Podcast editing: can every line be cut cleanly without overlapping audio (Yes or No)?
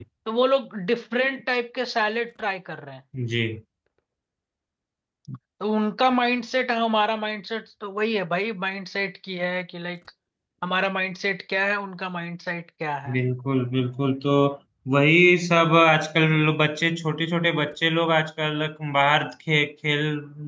Yes